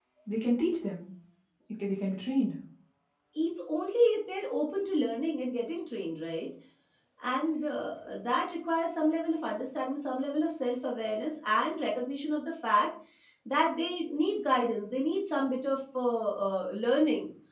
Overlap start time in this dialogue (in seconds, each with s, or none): none